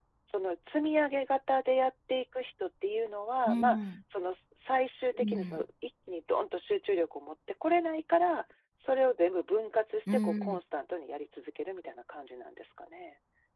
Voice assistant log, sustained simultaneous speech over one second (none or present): none